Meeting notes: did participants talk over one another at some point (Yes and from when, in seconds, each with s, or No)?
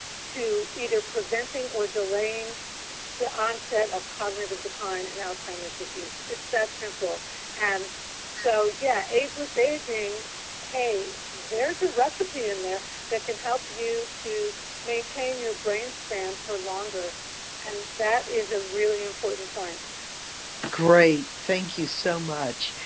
No